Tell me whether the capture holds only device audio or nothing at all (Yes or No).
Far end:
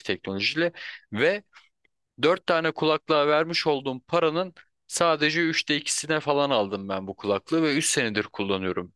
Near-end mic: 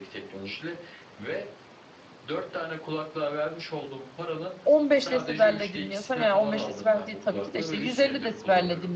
No